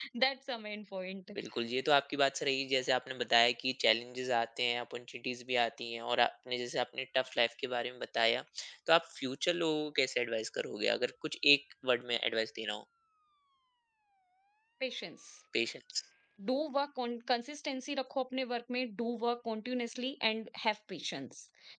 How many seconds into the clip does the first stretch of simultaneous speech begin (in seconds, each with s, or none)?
none